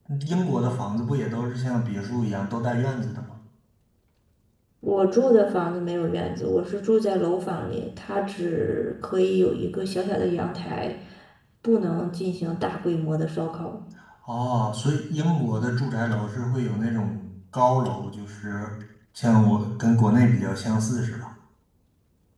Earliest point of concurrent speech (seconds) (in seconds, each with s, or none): none